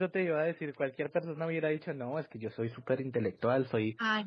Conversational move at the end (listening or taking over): listening